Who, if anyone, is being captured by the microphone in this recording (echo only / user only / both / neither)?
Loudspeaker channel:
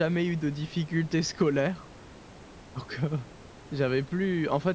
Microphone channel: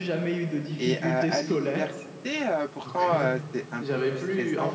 both